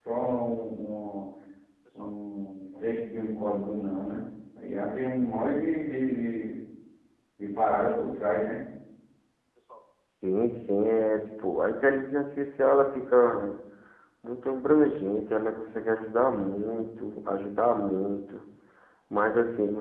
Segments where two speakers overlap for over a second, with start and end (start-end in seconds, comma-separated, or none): none